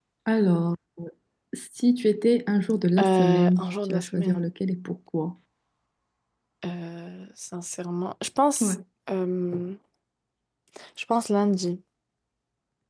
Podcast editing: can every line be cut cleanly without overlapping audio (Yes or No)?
No